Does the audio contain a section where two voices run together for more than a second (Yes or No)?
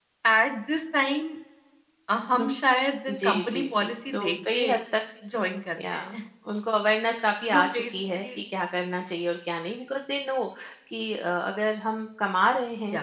Yes